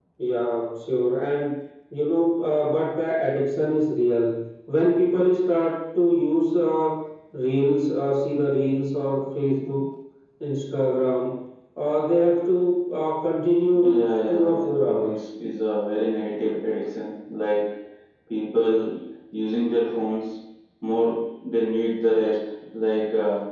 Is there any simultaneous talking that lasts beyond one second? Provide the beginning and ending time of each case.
13.9-15.2

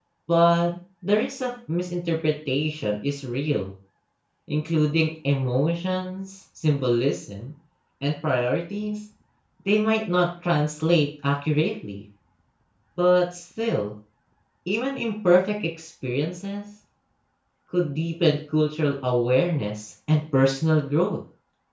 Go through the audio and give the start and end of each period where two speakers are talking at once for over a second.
none

